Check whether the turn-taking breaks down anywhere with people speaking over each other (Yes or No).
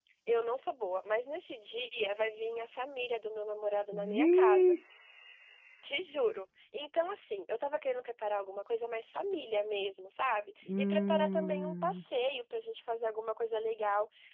Yes